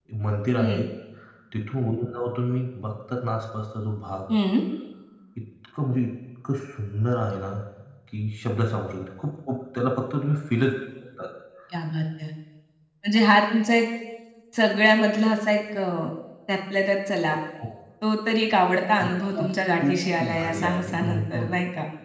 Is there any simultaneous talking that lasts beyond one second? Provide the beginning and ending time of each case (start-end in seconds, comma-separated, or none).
19.0-21.4